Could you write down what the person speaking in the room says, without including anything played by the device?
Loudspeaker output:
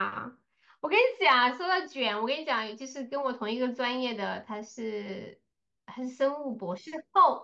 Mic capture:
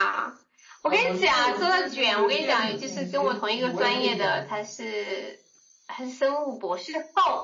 呃，我是我是就是电子信息，就是我也可以做 IT。

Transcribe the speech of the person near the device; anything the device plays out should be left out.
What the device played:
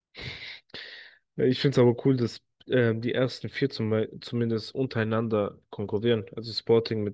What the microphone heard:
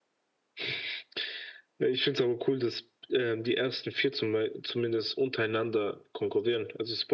none

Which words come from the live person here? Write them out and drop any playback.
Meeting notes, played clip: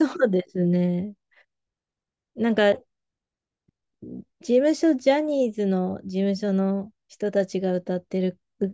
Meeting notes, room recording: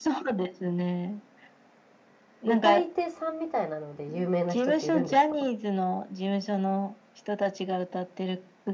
歌い手さんみたいなので有名な人っているんですか

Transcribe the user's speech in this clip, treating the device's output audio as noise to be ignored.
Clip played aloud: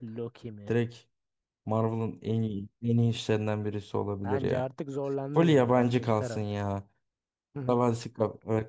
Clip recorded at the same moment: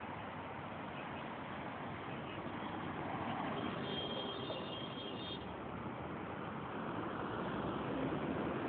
none

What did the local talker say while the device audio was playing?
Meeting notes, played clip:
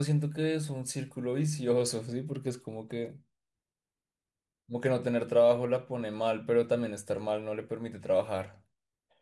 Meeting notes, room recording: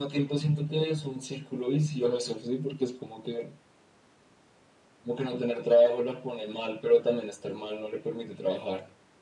none

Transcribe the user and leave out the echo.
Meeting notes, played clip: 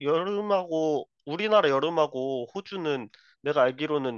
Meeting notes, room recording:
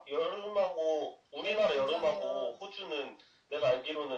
예로 들자면

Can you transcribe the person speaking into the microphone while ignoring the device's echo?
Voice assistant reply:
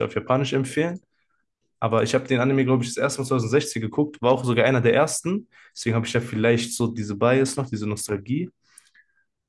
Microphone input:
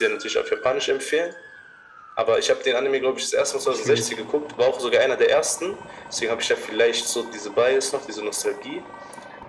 Schwierig.

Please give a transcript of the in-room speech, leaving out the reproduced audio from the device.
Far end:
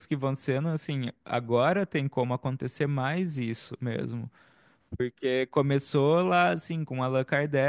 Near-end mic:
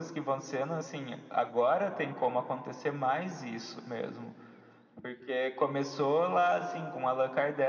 none

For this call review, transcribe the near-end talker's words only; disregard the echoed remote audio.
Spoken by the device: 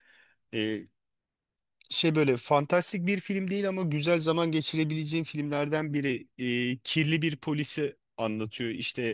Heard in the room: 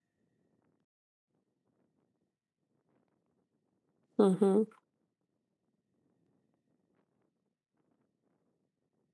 Hı hı.

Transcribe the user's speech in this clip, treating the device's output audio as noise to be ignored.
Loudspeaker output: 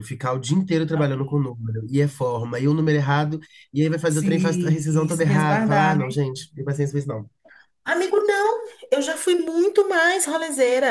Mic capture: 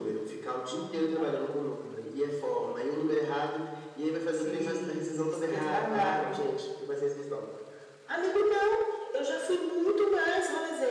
none

